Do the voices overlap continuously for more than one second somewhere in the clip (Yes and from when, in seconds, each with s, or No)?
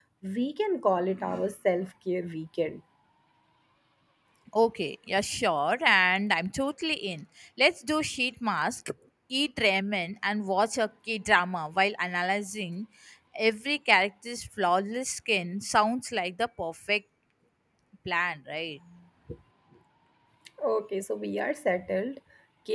No